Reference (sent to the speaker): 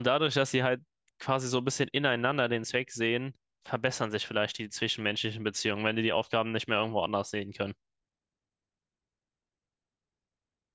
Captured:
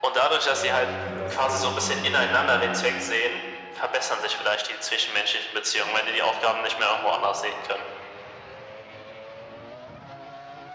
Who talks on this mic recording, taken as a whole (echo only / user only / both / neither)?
both